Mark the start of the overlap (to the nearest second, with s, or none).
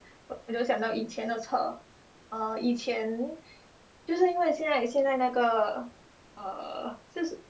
none